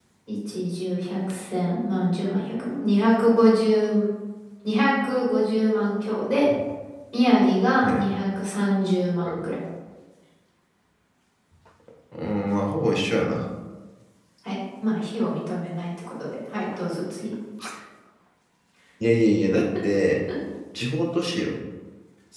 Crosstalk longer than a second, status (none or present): none